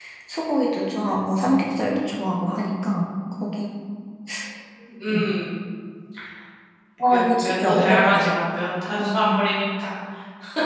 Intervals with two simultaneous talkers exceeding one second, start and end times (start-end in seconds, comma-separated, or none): 7.1-8.3